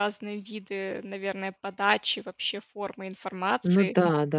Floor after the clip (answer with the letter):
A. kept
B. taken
B